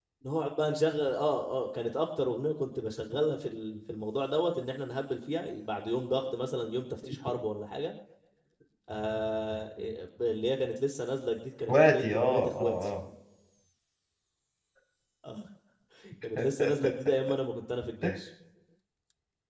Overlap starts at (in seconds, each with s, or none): 11.7 s